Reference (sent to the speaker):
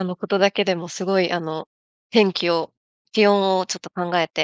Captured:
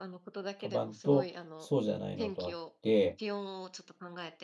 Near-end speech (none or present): present